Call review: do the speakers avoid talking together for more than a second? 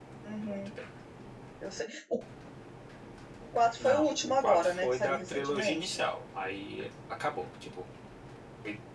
No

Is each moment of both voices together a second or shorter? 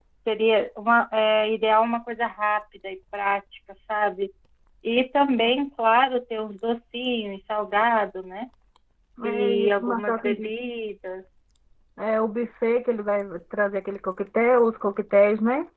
No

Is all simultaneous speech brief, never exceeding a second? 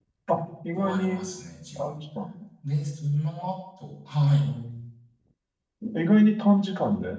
Yes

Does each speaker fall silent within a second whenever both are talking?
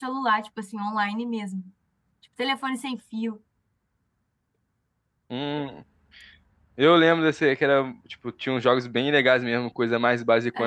Yes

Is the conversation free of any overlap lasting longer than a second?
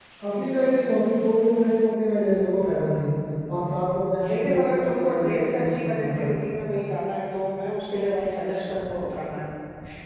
No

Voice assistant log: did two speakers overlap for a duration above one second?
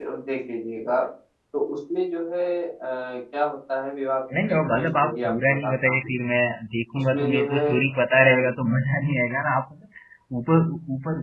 Yes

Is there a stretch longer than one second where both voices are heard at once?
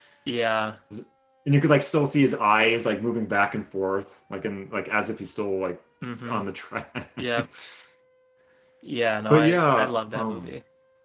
Yes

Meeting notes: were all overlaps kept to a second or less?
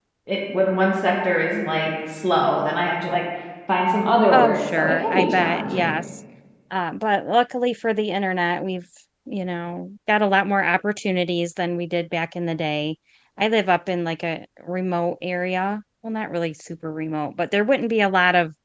No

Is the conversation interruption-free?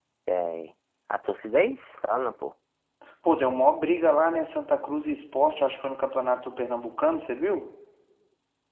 Yes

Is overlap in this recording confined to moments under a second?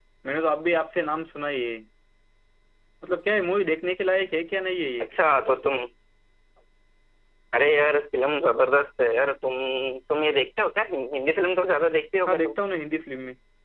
Yes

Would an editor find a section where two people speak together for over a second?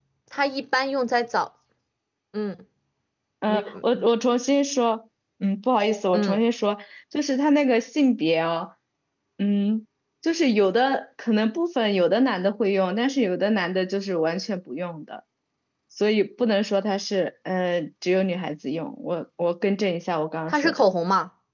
No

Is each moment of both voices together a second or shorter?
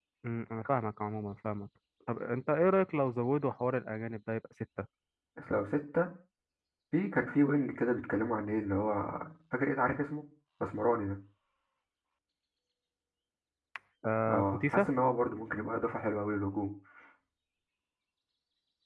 Yes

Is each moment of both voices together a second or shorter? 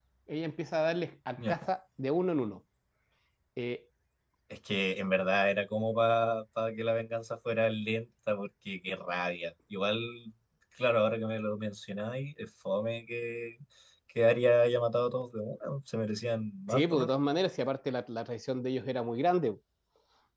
Yes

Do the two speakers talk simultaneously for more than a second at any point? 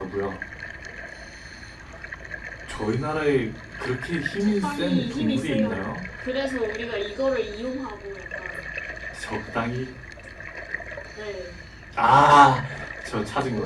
Yes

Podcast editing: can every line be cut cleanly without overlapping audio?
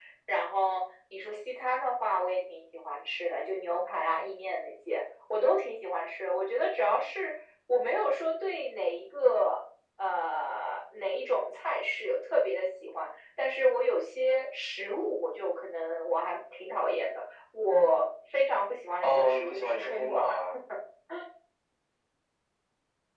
No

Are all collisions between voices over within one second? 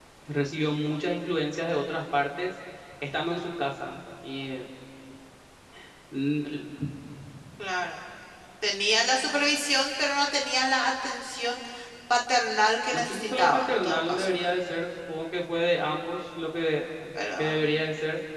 No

